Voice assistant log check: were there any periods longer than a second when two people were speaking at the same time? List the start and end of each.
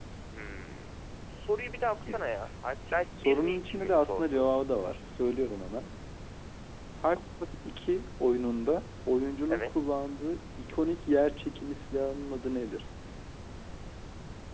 3.2-4.5

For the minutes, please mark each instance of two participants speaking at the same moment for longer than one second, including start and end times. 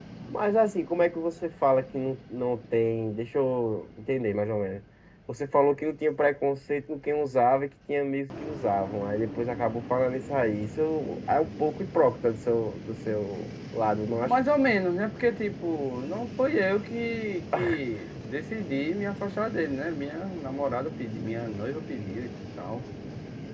none

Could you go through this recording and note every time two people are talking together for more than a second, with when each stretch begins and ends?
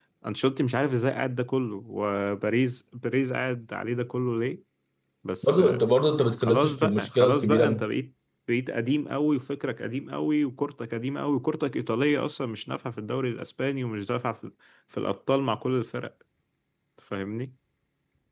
6.4-7.8

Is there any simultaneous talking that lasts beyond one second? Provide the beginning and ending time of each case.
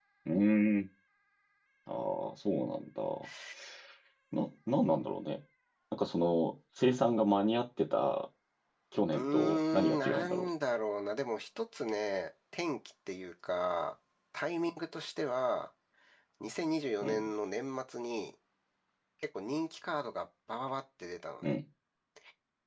9.1-10.5

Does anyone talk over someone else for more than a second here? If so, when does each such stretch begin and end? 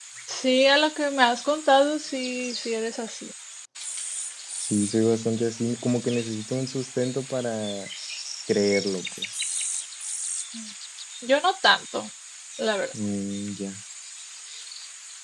none

